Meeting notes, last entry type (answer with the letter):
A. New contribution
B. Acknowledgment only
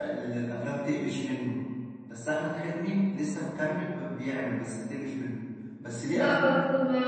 A